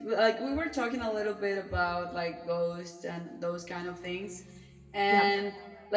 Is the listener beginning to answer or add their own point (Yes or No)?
No